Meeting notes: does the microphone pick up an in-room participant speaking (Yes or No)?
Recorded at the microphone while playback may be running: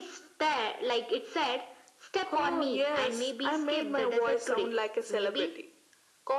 No